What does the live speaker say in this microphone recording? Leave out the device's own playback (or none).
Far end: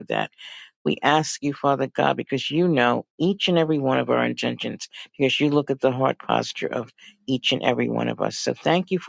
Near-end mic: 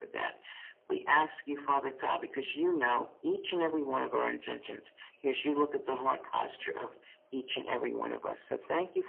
none